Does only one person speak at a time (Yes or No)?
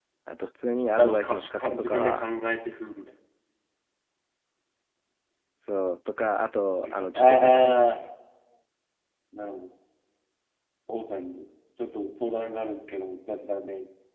No